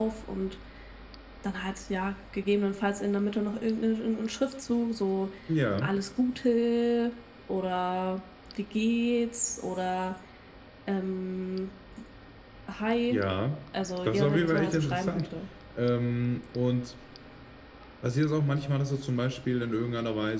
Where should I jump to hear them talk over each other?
14.0 s

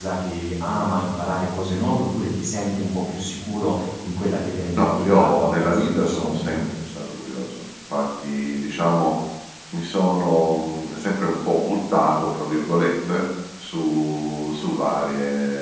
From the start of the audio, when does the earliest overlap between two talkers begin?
4.8 s

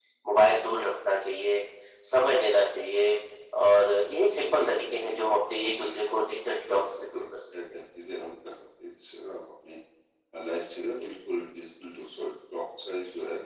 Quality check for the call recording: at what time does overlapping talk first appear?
4.5 s

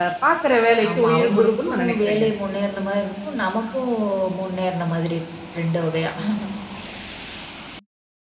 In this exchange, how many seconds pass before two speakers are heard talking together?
1.0 s

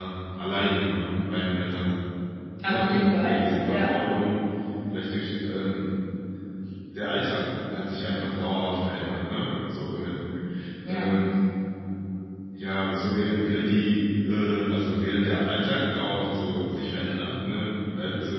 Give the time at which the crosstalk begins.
2.6 s

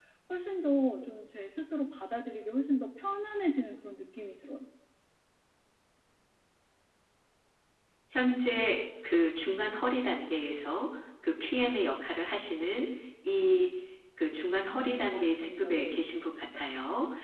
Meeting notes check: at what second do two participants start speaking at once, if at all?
14.7 s

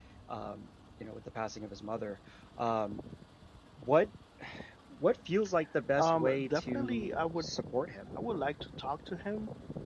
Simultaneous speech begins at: 6.0 s

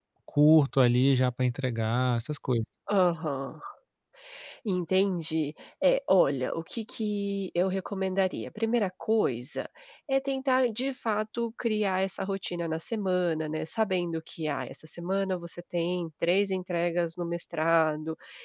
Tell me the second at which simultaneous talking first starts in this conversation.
none

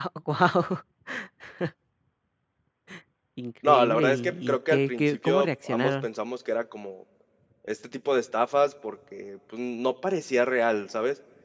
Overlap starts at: 3.7 s

